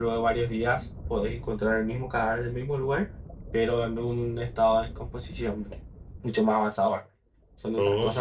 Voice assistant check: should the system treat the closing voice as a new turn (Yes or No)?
Yes